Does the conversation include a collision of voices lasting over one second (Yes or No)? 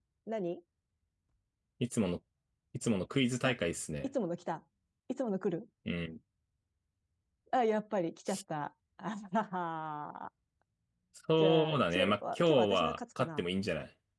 Yes